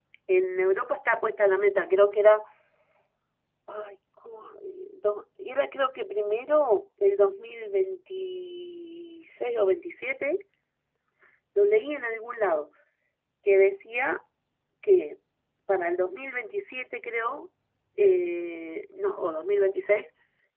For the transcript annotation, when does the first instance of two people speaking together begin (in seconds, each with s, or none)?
none